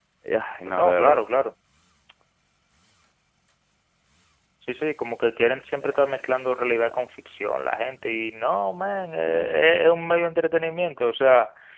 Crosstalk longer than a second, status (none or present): none